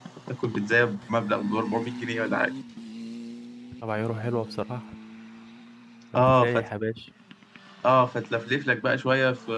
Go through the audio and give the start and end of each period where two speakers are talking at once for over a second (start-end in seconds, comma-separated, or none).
none